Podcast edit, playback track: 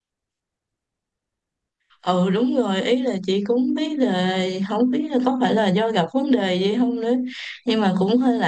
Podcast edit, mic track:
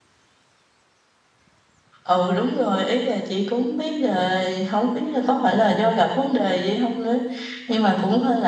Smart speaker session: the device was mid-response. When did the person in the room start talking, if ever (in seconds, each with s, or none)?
none